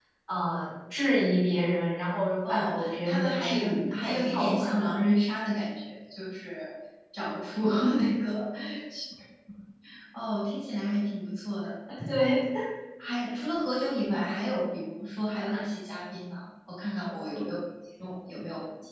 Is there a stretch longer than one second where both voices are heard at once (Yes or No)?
Yes